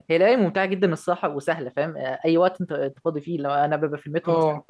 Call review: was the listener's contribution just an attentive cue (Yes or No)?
Yes